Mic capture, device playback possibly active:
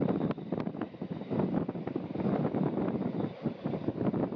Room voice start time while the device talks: none

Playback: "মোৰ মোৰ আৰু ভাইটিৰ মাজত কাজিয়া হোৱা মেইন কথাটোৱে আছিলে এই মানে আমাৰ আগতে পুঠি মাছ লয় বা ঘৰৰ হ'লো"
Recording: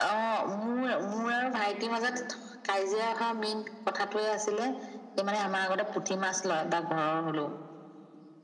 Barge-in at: none

